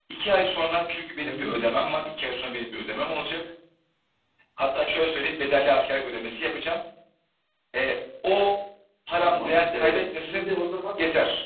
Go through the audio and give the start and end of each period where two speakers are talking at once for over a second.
9.2-10.5

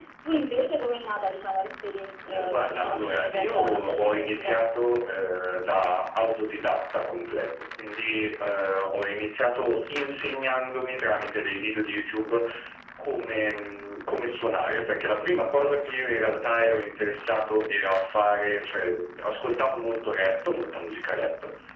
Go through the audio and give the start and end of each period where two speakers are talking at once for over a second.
2.3-4.6

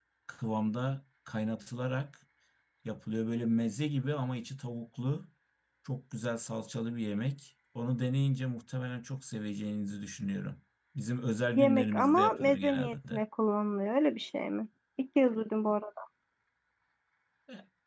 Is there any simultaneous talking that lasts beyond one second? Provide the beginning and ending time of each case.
11.6-13.2

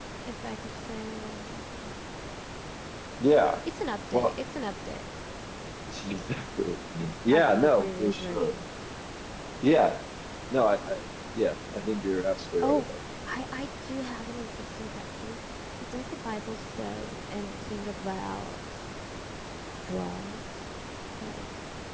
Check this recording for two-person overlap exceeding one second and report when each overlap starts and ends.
7.3-8.6

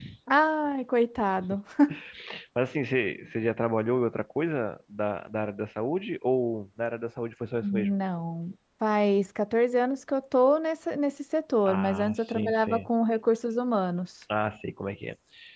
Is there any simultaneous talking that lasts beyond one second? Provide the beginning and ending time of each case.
11.7-12.9

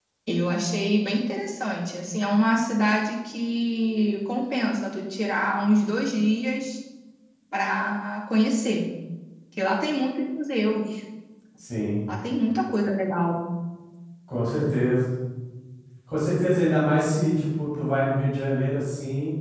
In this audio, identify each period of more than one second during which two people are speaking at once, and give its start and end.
none

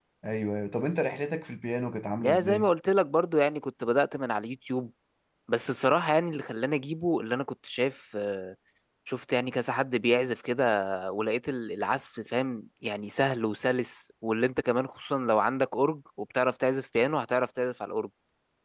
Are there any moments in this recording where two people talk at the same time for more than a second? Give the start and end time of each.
none

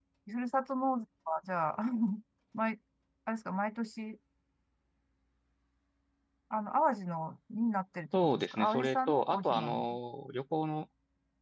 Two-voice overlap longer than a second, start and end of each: 8.2-9.8

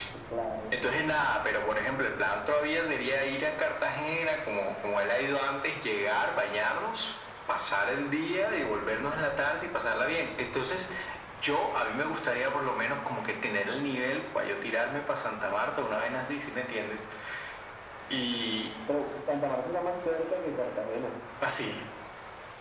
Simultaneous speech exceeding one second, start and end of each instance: none

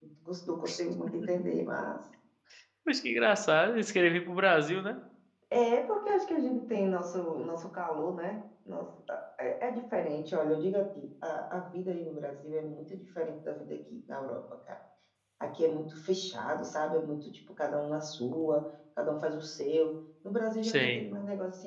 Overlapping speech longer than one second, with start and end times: none

